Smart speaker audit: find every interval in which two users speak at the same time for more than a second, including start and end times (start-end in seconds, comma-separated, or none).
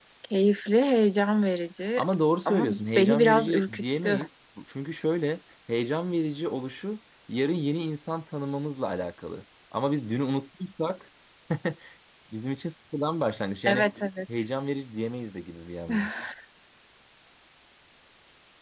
2.5-4.3